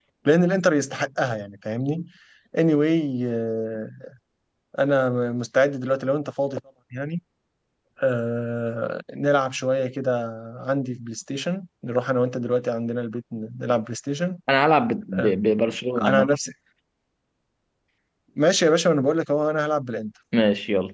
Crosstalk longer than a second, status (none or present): none